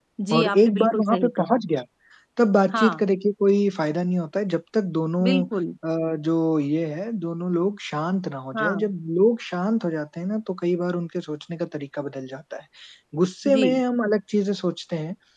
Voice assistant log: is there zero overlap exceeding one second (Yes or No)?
No